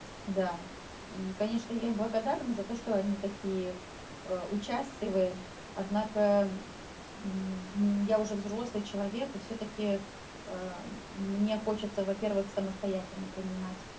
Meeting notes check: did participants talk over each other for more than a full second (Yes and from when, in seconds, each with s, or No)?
No